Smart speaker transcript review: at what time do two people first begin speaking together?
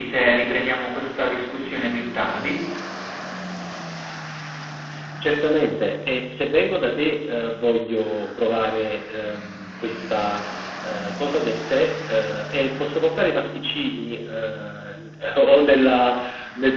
none

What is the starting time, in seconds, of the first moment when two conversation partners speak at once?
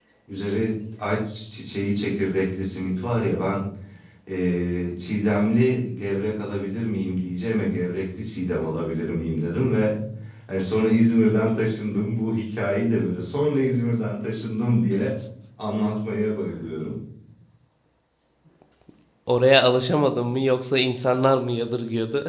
none

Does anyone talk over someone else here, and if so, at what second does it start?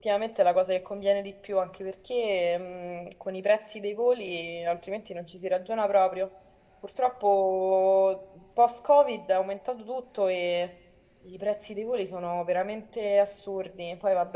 none

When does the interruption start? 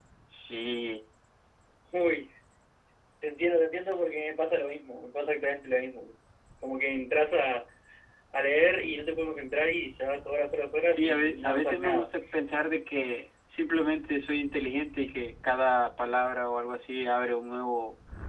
11 s

